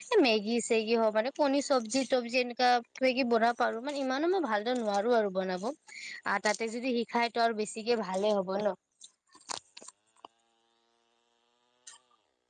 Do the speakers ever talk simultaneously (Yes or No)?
No